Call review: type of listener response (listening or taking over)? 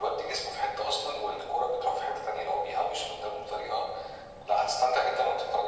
listening